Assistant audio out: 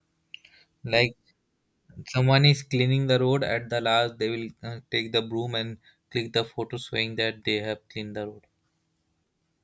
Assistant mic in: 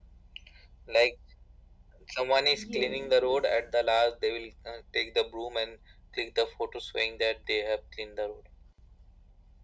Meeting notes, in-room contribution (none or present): present